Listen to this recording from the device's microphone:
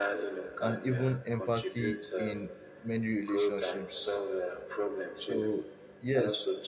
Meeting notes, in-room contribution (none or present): present